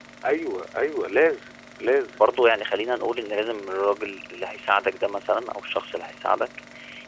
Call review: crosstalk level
none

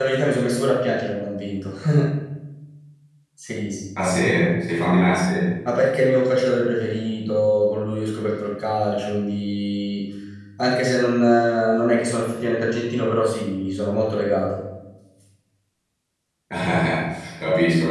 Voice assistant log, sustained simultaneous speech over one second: none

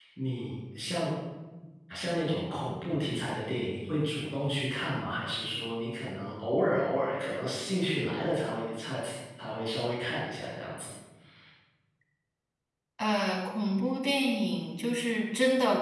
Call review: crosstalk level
none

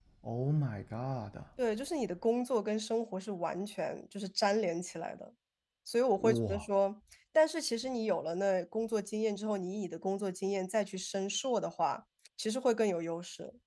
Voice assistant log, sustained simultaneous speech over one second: none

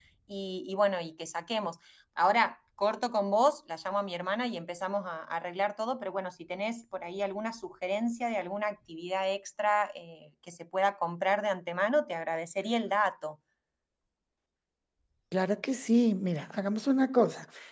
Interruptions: none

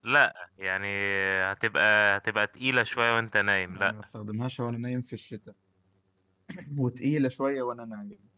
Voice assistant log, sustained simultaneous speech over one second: none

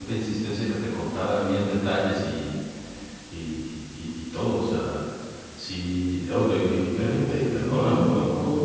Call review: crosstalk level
present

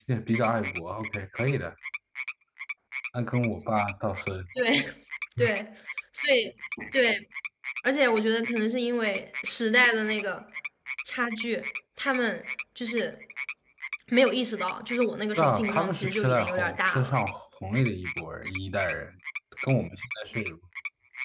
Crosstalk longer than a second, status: present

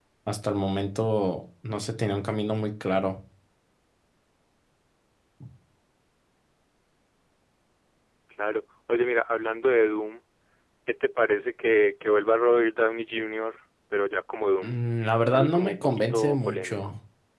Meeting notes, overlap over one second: present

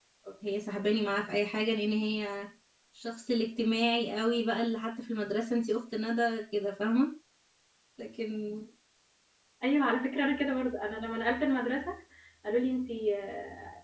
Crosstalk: none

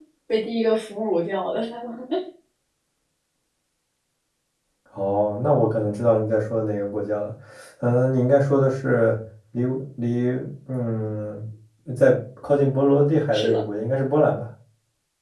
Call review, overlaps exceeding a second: none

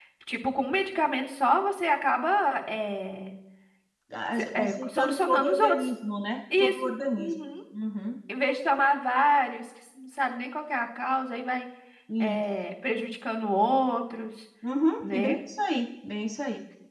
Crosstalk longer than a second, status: present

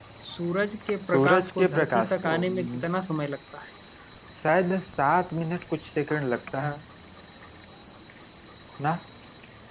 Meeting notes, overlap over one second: present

